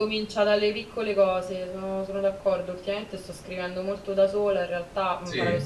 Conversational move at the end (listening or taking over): listening